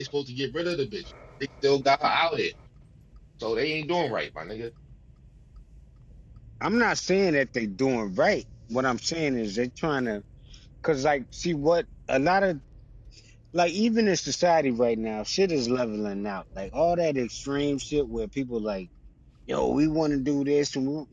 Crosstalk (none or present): none